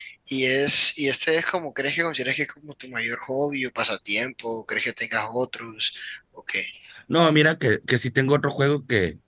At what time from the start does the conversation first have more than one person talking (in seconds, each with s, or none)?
none